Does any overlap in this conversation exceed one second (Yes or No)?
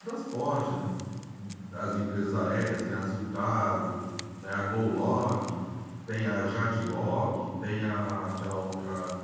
No